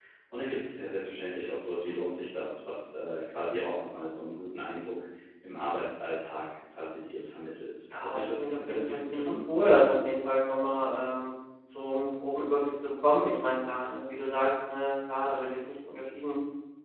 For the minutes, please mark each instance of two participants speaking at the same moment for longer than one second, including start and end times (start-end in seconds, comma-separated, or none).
8.0-9.3